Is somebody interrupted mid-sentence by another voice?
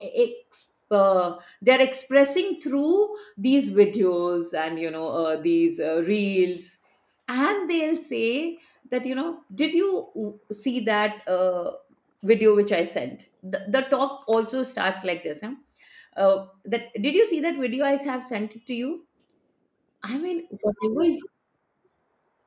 No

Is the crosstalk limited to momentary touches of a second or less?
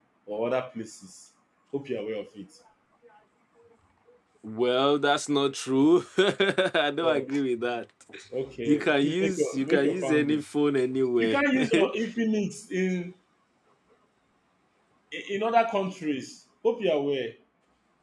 No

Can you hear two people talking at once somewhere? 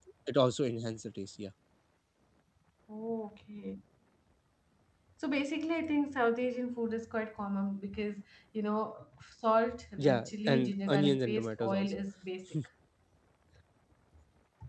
Yes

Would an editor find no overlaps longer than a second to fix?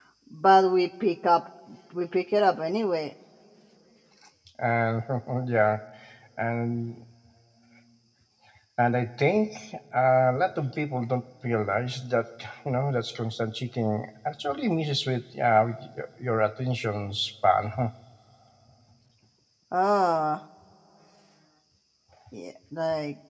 Yes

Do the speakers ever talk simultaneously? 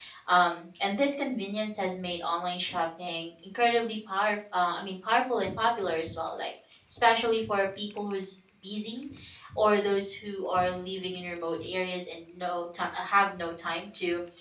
No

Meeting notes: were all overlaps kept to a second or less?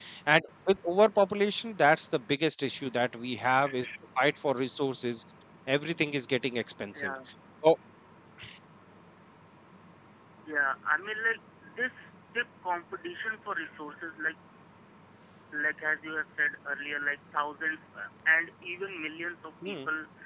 Yes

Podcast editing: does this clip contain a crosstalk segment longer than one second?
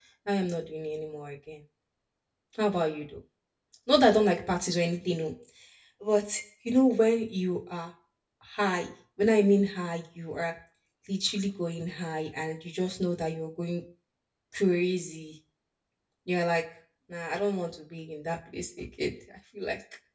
No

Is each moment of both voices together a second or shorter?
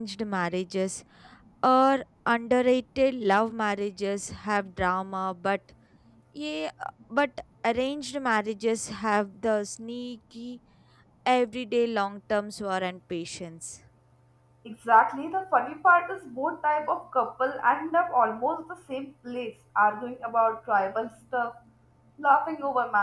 Yes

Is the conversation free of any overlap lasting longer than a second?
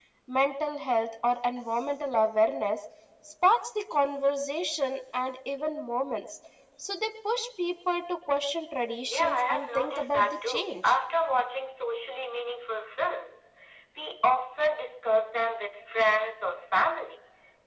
No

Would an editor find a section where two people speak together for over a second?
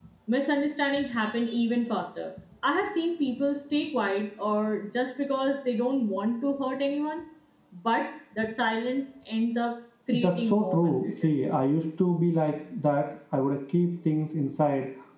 Yes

